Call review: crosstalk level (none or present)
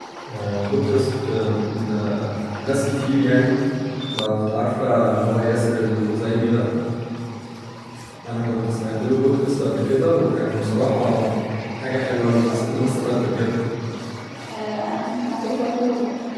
none